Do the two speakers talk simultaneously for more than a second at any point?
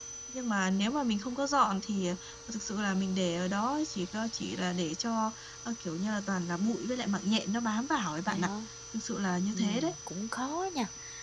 No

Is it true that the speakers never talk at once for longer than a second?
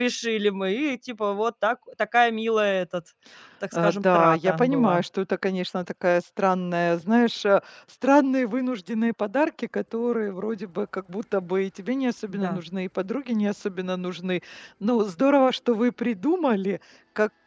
No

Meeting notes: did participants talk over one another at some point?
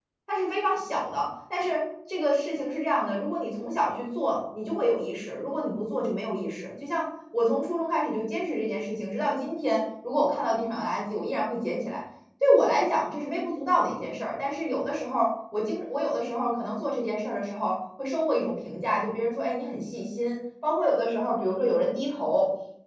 No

